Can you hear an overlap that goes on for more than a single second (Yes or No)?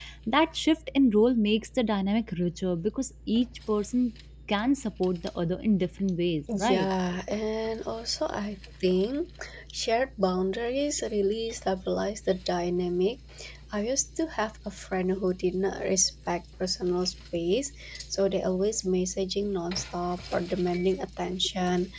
No